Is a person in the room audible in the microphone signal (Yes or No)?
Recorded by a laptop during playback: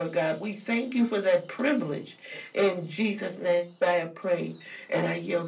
No